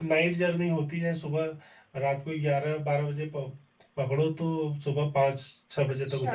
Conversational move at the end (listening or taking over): listening